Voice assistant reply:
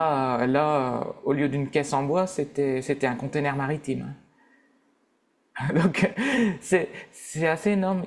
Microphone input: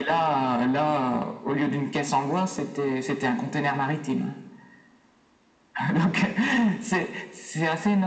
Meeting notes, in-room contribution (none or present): none